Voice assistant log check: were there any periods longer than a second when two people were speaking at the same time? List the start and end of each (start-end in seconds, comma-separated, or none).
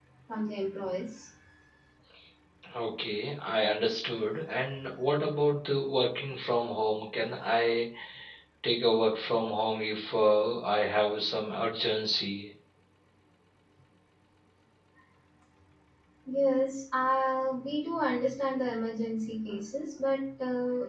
none